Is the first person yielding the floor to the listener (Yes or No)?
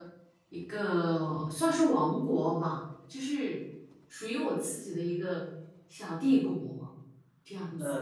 Yes